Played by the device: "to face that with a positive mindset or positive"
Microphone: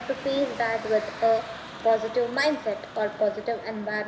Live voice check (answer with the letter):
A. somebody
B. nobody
B